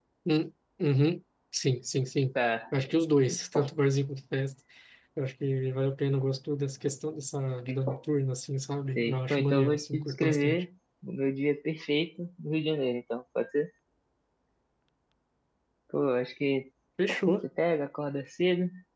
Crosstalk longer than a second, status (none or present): present